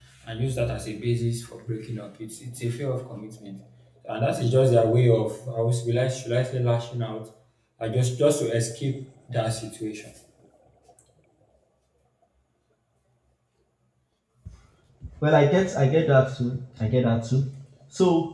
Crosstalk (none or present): none